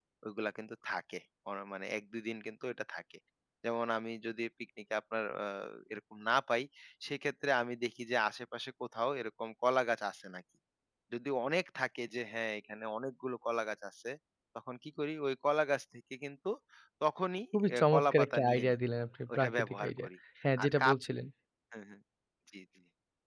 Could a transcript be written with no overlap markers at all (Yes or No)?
No